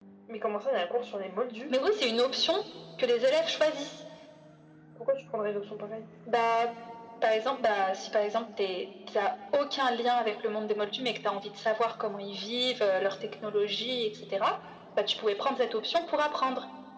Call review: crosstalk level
none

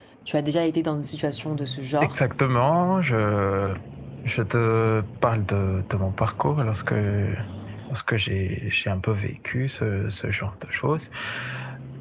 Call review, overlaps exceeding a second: none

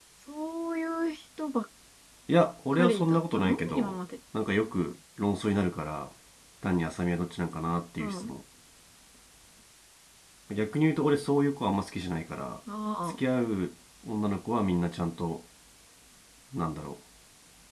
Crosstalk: present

